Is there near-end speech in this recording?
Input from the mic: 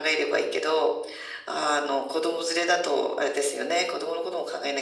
No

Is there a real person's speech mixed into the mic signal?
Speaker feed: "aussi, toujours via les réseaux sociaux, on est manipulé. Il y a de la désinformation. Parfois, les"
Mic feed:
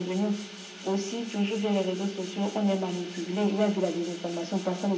No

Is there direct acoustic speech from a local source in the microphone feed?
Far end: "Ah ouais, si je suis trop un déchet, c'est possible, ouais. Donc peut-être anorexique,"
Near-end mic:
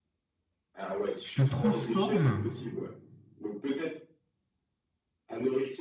Yes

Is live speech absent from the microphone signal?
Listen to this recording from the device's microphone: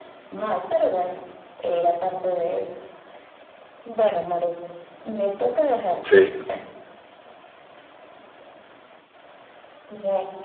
No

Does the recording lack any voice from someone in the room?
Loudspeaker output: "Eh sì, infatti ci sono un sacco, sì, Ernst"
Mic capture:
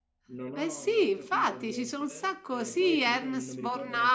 No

